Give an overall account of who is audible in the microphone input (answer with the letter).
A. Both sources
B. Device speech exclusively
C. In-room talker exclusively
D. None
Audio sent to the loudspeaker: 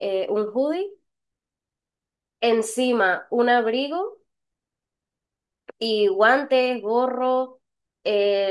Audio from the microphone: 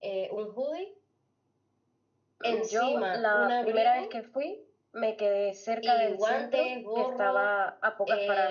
A